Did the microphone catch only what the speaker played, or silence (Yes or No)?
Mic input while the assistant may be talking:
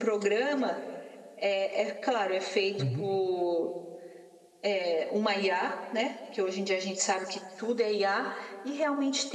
No